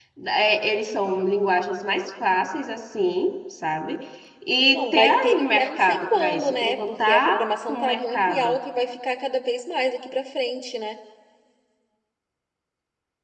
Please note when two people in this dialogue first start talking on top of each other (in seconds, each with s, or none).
4.7 s